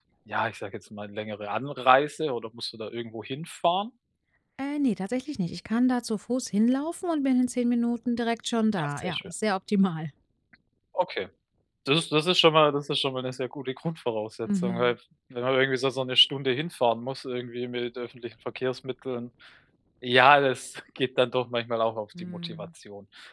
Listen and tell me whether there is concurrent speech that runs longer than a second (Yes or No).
No